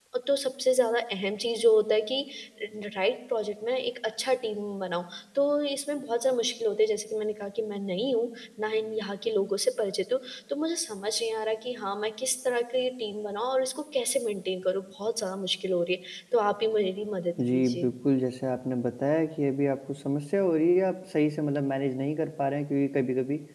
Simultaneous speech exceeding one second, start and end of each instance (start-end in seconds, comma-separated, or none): none